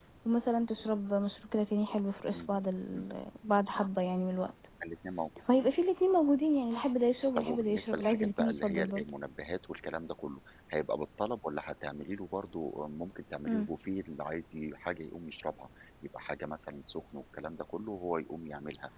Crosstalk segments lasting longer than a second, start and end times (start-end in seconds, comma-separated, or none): 7.3-9.1